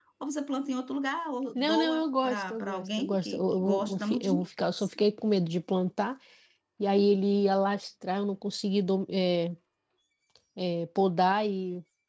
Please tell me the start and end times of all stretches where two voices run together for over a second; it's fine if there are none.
1.6-4.5

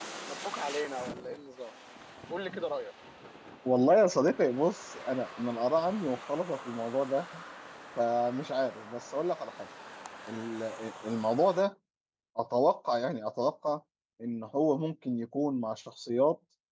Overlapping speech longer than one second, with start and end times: none

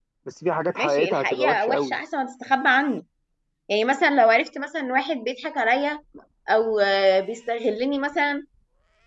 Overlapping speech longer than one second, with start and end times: 0.8-2.0

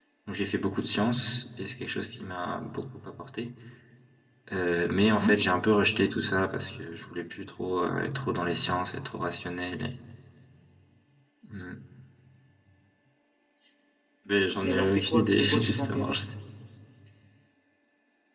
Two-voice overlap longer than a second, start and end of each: 14.6-16.2

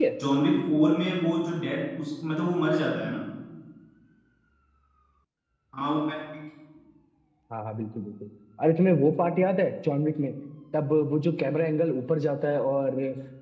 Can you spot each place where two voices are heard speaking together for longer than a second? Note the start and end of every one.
none

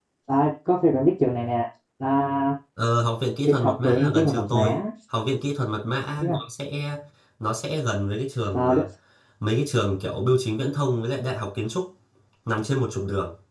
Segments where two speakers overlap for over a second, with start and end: 3.4-4.8

